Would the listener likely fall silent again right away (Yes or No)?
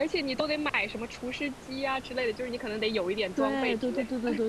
No